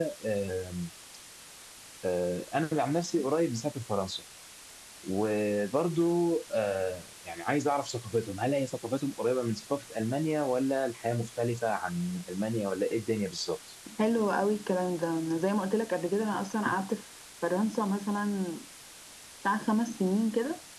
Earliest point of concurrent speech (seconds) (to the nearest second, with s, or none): none